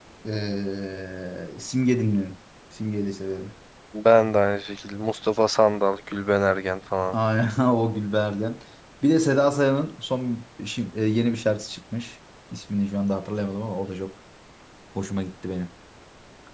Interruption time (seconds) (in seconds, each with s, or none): none